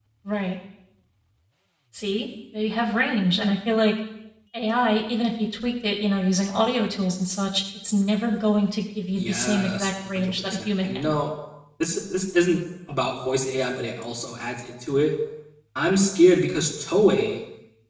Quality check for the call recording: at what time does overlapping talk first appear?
9.2 s

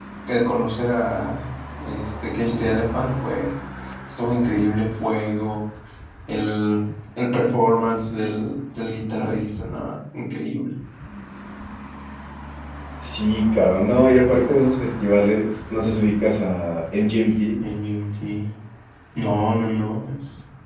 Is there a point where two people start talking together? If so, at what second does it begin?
none

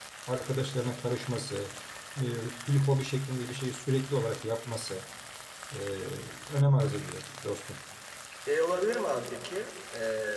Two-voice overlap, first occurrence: none

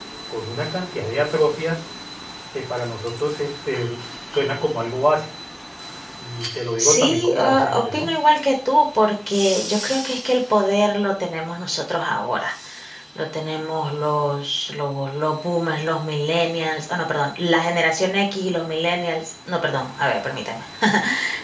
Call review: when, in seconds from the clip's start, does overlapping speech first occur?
6.8 s

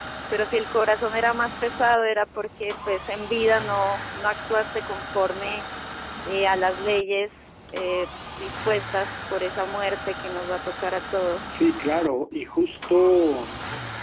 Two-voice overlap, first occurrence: none

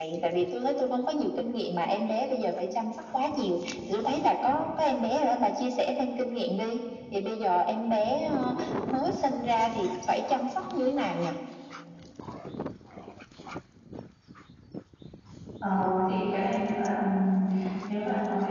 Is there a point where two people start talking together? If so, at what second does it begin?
none

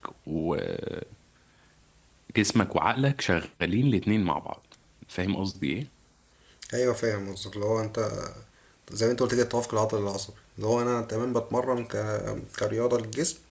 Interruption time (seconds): none

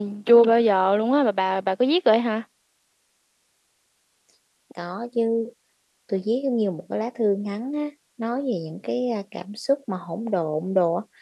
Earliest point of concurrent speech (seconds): none

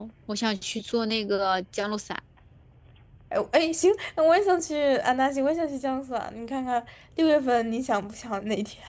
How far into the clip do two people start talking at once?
none

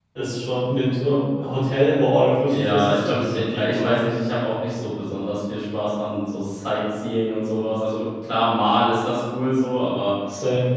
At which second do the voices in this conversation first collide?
2.5 s

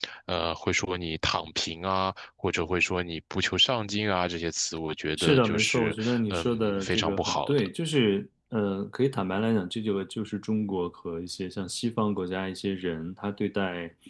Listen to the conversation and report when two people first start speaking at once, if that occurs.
5.2 s

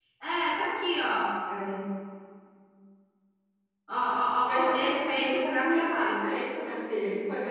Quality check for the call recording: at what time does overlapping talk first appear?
4.4 s

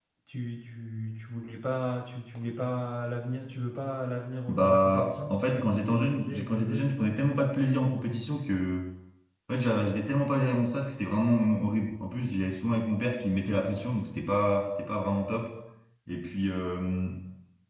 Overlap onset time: 4.5 s

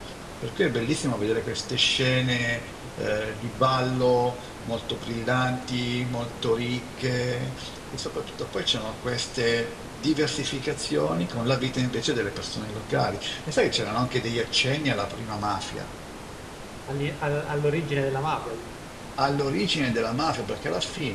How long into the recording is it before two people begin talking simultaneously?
none

